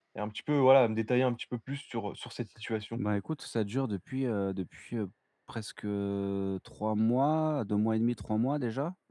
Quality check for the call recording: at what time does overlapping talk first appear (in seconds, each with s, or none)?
none